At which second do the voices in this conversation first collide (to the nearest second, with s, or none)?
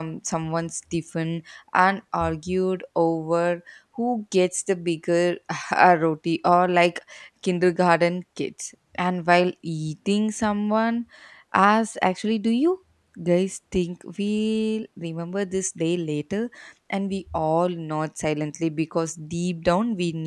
none